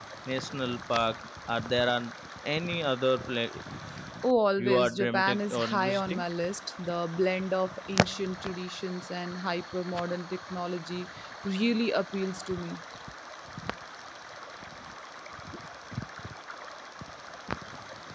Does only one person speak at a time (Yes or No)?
No